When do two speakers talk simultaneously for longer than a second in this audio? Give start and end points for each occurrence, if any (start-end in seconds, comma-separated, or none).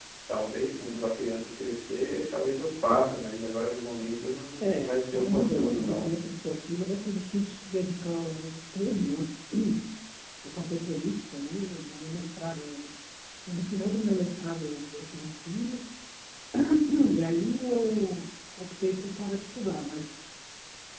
4.6-6.1